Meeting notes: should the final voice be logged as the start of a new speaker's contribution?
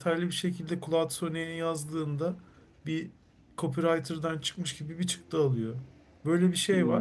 No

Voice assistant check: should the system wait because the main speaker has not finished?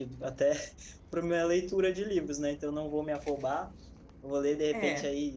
Yes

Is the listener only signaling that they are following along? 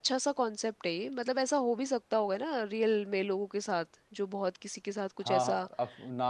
No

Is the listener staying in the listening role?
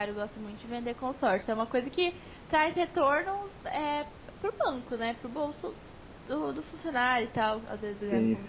No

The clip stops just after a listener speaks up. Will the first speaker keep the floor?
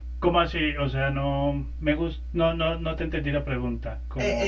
No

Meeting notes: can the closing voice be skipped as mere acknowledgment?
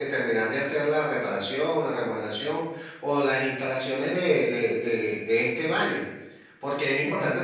Yes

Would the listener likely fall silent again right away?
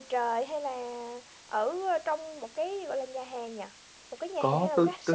No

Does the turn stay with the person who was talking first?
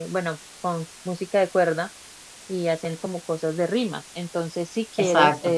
Yes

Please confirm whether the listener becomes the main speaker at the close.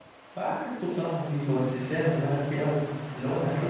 Yes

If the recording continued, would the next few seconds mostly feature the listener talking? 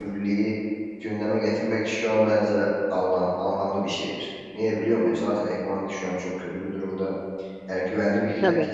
Yes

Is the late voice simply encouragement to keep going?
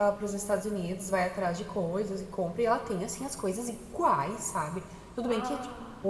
Yes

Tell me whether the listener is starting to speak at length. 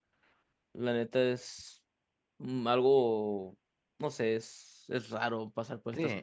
Yes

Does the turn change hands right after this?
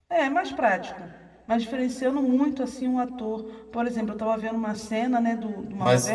No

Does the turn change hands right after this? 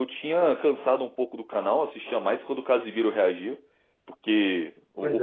No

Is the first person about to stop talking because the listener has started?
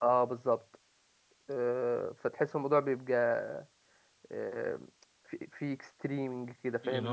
Yes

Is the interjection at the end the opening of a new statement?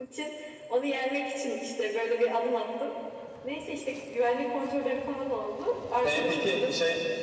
Yes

